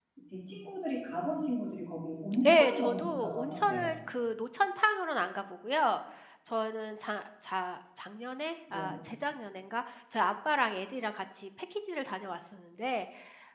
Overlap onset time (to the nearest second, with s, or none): 2 s